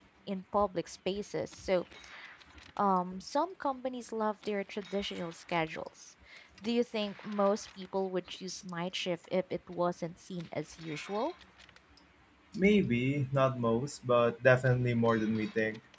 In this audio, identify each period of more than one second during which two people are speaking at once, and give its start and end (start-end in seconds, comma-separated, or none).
none